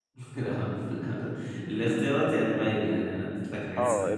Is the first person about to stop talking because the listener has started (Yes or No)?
Yes